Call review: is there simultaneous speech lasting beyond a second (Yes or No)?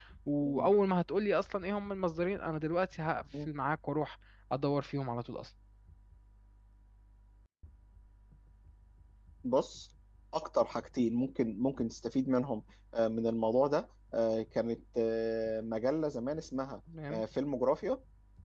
No